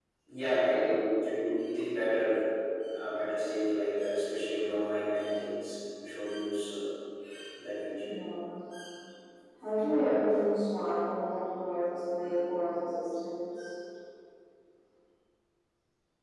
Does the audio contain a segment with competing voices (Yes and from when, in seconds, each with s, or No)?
No